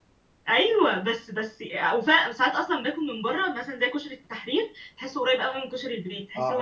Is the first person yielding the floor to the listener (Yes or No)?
Yes